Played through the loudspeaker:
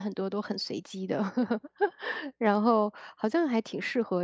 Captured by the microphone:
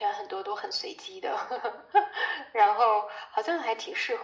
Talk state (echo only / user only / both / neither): echo only